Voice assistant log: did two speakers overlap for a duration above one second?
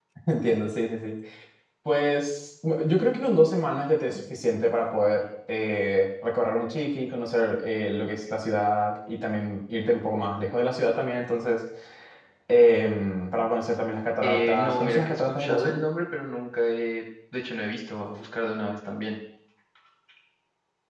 Yes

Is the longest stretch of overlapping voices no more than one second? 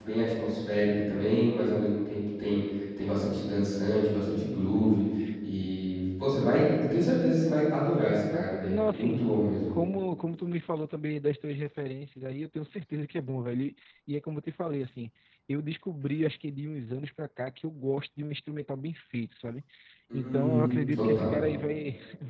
No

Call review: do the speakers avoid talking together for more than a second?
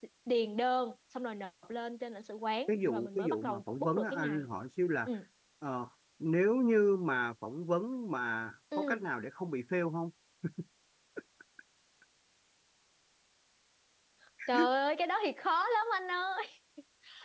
No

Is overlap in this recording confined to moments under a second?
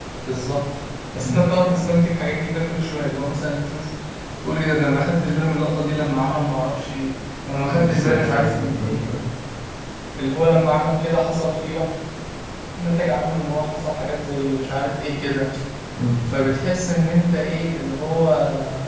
No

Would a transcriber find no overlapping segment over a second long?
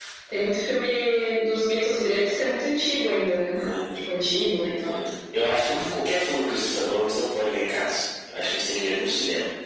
Yes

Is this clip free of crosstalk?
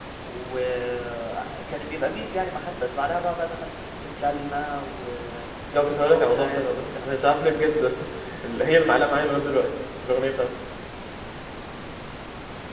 No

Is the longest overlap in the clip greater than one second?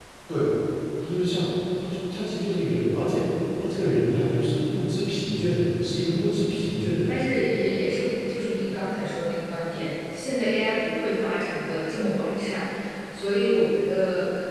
No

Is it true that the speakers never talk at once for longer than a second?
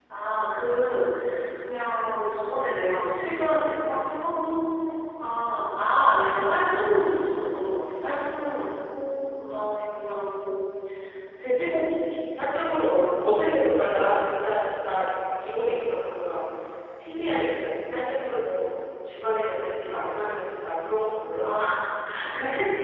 Yes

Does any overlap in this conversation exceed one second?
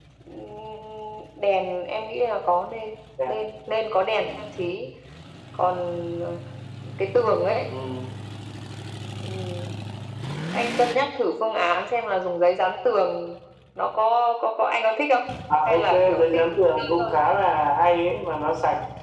Yes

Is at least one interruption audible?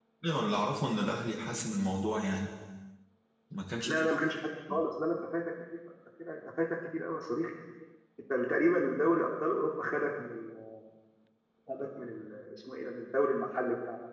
No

